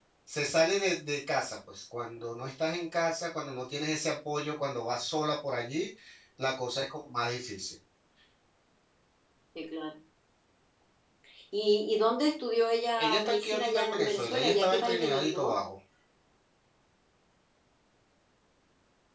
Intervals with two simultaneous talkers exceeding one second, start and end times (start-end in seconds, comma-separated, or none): 13.0-15.6